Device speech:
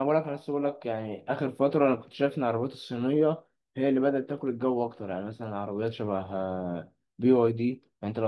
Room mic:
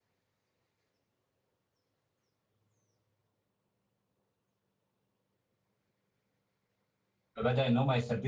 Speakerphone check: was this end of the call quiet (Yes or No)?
No